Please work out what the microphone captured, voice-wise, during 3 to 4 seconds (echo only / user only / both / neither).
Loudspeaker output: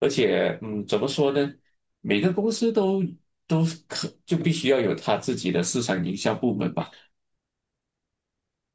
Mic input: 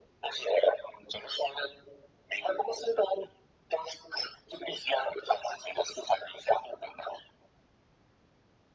echo only